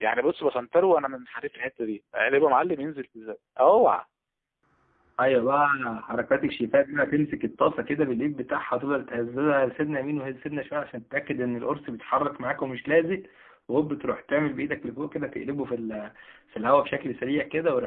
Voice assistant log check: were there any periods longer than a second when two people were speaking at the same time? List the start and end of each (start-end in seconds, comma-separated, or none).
none